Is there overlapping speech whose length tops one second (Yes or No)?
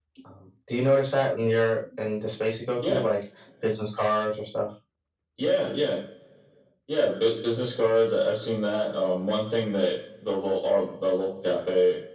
No